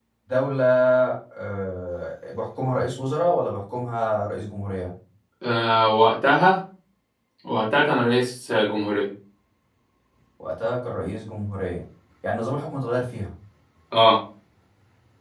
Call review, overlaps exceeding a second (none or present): none